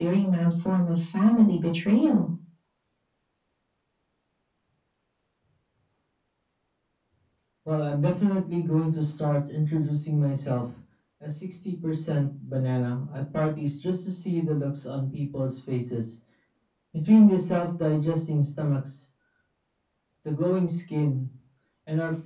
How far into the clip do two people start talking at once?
none

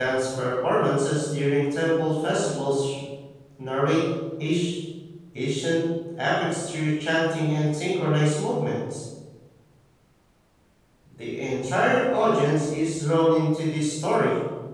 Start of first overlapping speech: none

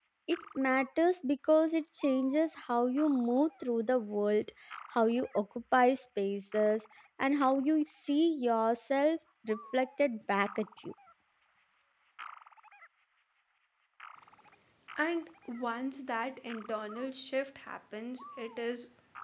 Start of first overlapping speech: none

